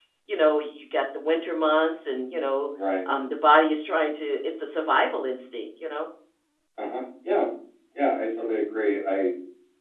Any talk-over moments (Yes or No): No